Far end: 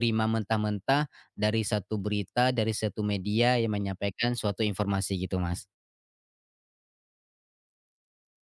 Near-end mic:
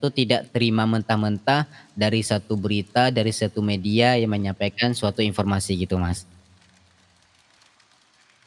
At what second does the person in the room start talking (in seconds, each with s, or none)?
none